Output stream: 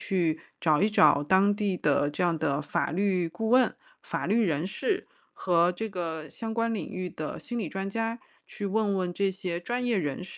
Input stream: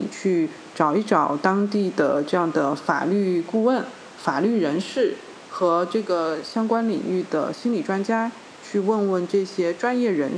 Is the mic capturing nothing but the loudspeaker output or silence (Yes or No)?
Yes